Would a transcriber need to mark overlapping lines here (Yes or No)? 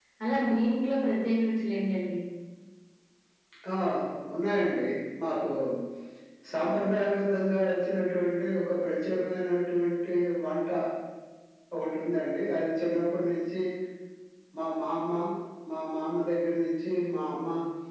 No